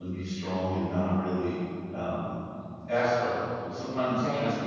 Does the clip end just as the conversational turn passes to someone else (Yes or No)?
No